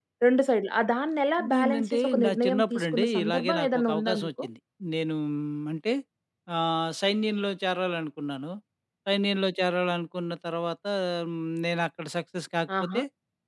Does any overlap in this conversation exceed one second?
Yes, from 1.5 s

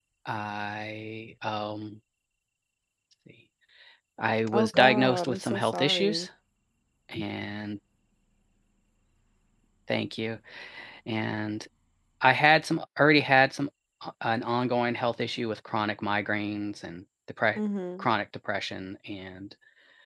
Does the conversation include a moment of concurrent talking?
Yes, from 4.5 s

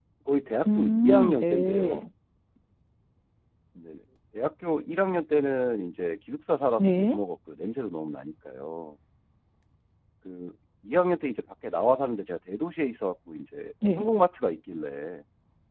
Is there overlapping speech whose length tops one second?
Yes, from 0.6 s

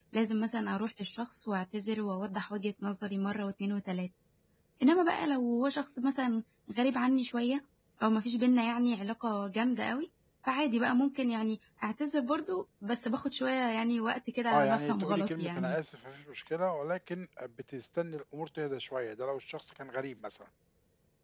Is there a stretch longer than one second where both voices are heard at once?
Yes, from 14.5 s

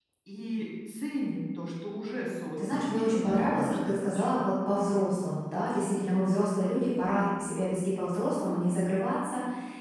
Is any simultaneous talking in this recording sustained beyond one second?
Yes, from 2.6 s

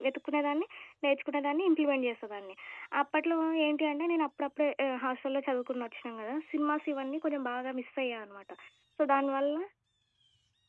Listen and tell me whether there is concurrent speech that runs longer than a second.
No

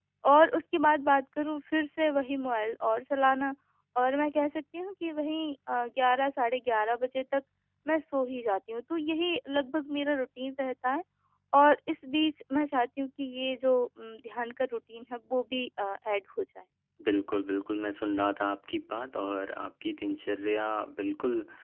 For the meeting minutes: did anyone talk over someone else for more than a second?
No

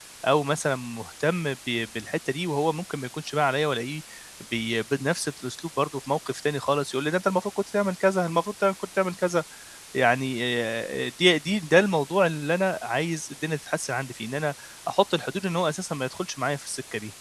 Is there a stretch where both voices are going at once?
No

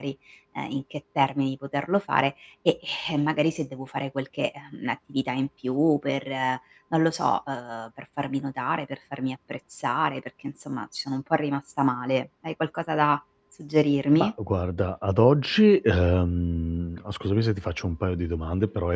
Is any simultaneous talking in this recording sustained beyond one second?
No

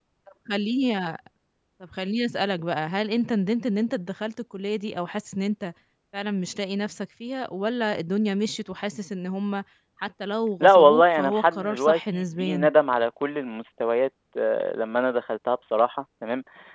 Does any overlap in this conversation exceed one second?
Yes, from 10.6 s

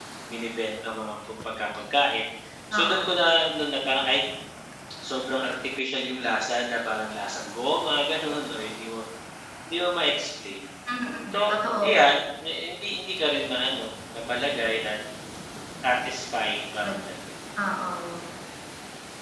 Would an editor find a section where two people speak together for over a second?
No

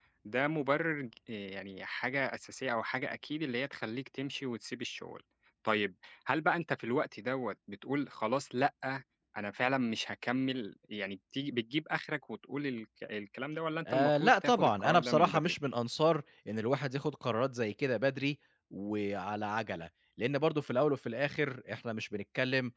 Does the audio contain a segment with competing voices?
Yes, from 13.8 s

